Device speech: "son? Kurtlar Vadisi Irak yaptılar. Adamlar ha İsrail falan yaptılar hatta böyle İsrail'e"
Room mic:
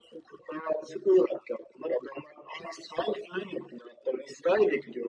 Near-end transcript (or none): none